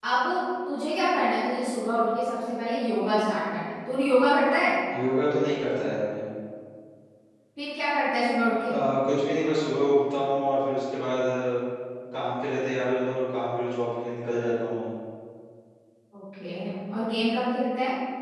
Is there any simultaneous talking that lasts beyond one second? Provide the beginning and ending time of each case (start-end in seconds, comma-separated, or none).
none